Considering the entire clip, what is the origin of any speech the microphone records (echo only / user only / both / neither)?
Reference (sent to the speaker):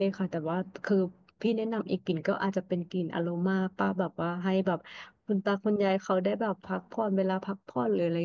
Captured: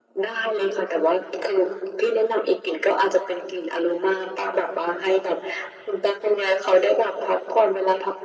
echo only